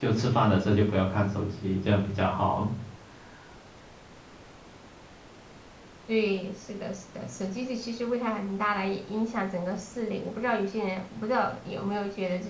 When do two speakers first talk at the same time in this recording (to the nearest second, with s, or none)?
none